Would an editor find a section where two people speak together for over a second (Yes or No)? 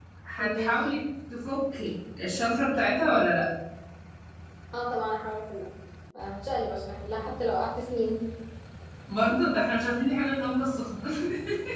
No